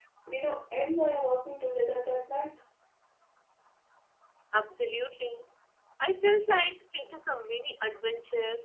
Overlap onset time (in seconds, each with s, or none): none